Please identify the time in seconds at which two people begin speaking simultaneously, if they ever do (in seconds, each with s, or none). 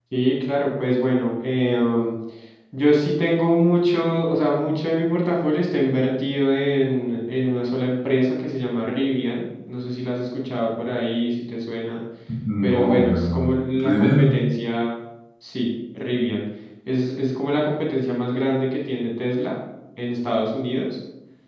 12.6 s